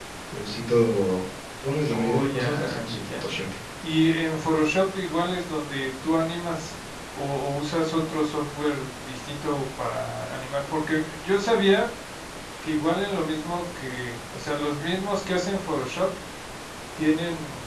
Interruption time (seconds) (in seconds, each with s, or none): 1.9 s